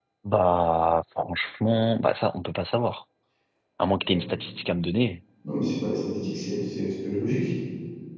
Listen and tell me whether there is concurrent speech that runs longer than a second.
No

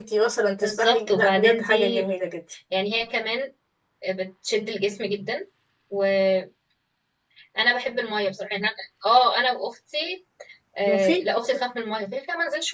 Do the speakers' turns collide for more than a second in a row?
Yes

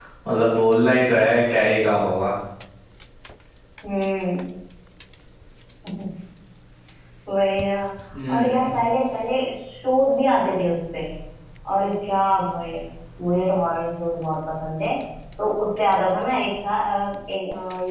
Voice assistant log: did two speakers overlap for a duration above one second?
No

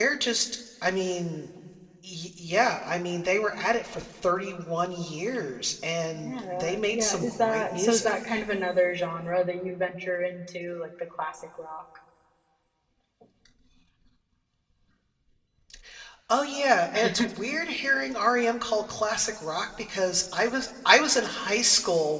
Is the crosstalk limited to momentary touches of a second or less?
No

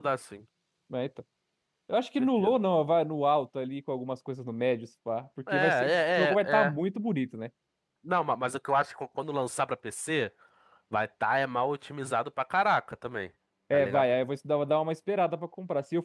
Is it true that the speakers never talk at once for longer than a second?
No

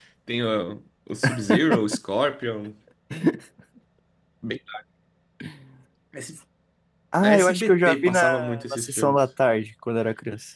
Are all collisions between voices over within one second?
No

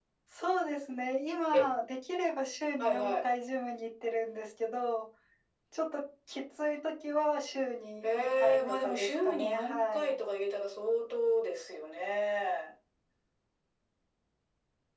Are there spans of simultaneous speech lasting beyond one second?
Yes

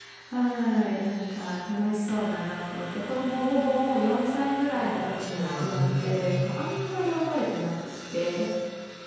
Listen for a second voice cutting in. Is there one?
Yes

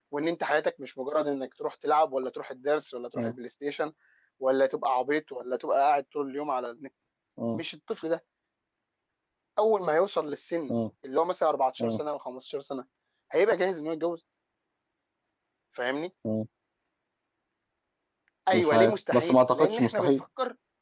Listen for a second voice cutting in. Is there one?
Yes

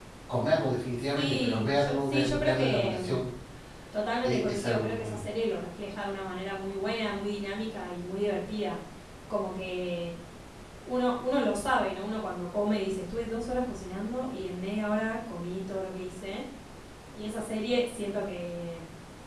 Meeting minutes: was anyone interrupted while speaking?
Yes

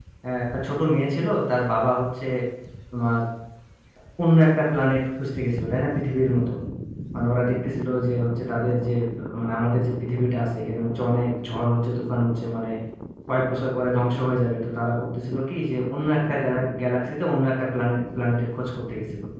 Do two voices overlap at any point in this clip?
No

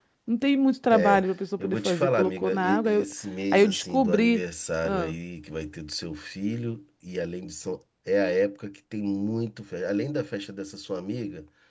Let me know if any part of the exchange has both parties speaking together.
Yes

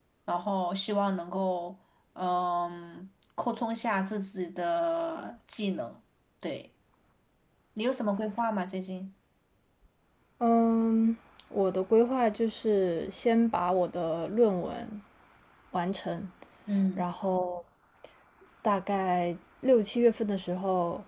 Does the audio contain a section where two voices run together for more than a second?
No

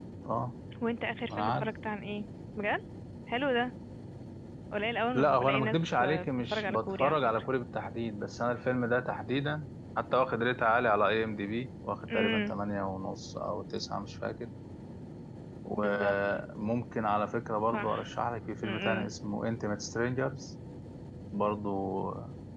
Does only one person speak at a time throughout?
No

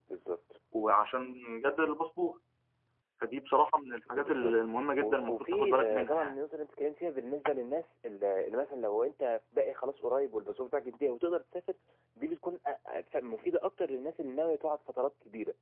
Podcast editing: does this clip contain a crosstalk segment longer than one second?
Yes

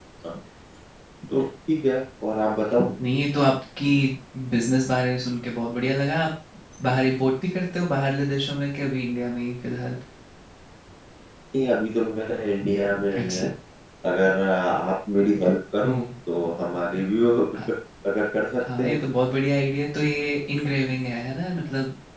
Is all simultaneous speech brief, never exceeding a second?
Yes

